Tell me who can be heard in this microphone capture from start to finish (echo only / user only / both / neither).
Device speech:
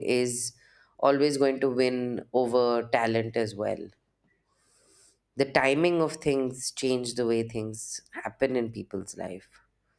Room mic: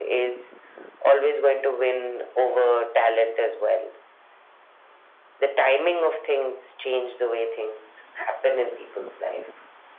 echo only